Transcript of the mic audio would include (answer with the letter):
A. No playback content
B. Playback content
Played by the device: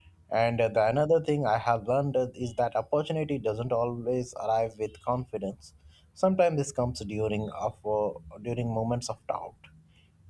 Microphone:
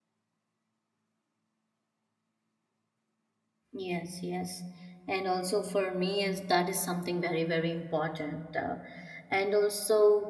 A